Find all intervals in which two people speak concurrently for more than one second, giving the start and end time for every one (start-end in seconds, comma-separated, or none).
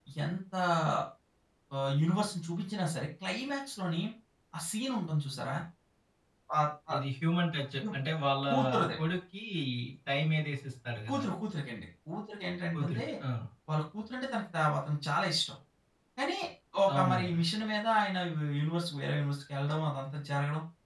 none